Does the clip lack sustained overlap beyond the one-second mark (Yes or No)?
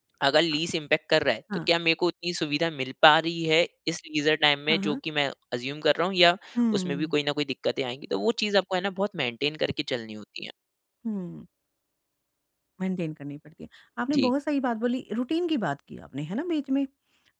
Yes